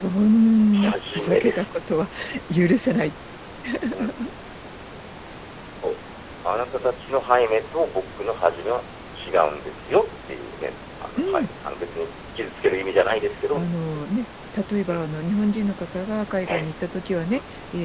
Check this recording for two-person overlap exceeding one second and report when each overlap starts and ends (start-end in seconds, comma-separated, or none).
0.7-2.1